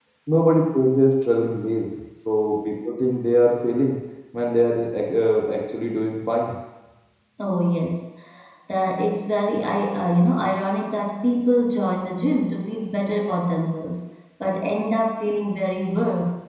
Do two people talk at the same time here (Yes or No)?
No